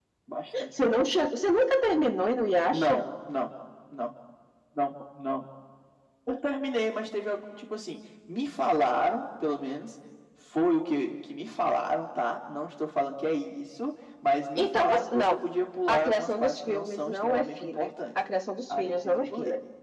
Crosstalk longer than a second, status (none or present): present